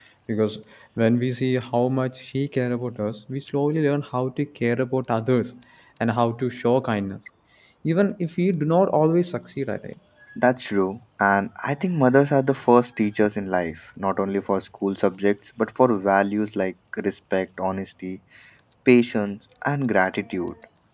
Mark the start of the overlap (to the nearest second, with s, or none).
none